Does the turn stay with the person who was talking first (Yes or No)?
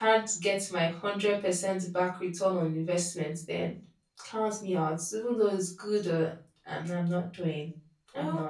No